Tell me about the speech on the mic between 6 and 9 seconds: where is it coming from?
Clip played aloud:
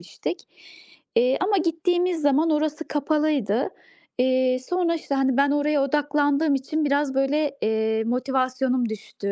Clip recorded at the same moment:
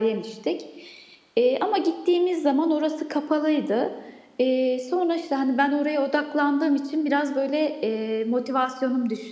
echo only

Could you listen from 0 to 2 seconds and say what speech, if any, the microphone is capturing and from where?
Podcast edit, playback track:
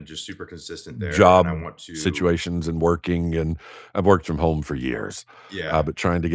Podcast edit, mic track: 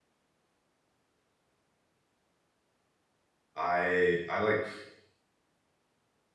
neither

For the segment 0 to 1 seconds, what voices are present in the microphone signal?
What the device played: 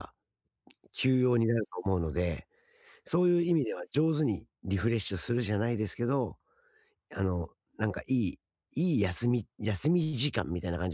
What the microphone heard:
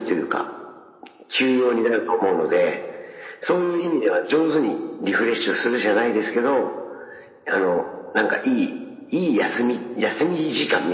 echo only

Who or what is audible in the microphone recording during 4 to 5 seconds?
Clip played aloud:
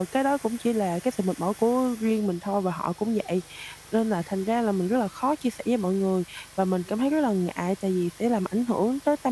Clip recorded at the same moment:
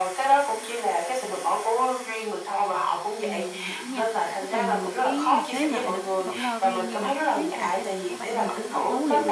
both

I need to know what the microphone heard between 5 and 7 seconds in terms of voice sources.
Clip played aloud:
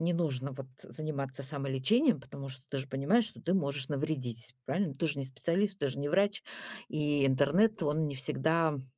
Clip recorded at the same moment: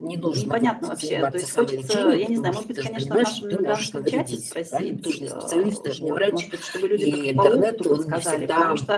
both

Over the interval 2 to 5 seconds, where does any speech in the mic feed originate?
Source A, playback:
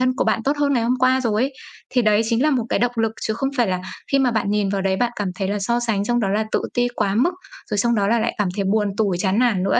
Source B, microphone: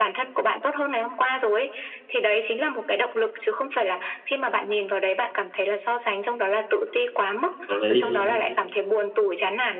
echo only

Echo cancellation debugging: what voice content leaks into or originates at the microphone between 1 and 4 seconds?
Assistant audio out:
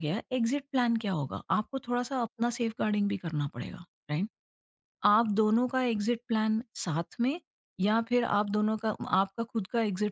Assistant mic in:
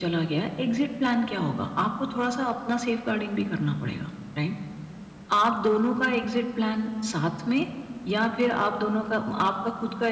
echo only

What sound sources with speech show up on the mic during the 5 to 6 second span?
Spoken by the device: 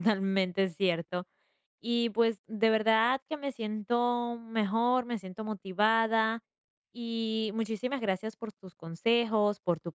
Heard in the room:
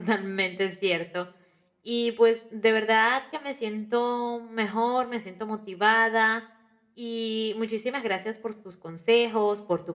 echo only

